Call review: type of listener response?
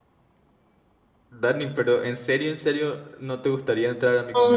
taking over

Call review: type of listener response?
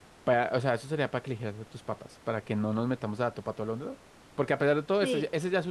listening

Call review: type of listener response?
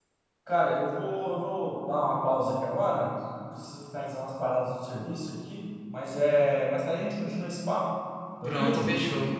taking over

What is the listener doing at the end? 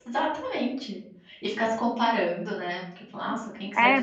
taking over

